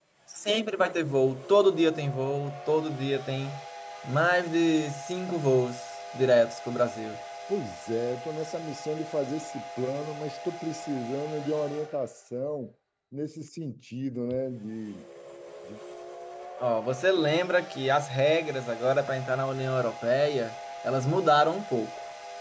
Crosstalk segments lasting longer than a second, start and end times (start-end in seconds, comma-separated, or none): none